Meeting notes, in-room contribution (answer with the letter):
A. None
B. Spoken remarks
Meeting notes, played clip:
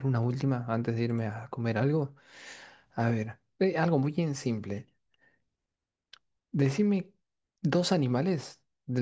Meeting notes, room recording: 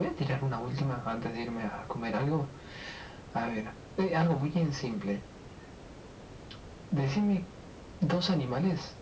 A